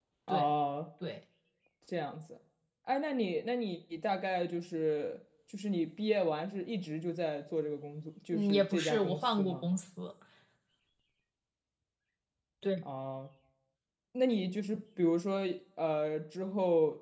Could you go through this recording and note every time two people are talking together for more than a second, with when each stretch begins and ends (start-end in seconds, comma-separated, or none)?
8.3-9.7